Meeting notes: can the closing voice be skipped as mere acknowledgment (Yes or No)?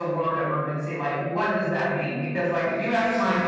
Yes